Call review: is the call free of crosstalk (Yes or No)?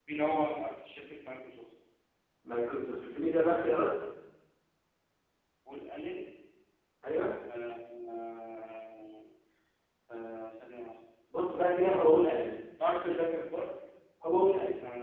Yes